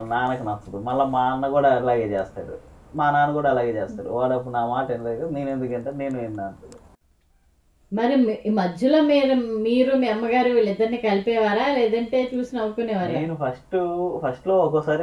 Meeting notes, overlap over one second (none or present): none